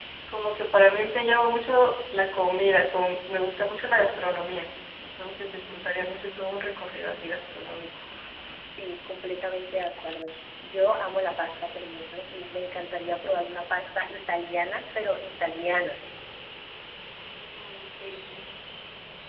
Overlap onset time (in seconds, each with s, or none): none